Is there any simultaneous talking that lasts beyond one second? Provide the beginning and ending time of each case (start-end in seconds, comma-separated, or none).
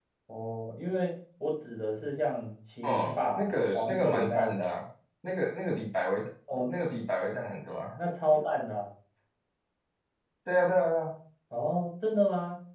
2.8-4.7